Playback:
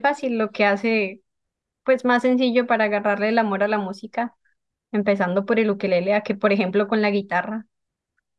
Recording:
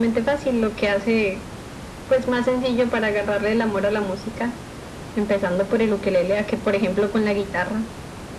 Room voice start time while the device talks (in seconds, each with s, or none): none